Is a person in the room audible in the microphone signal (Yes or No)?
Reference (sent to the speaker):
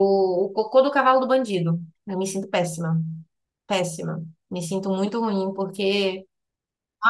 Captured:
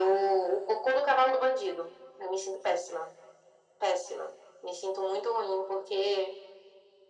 No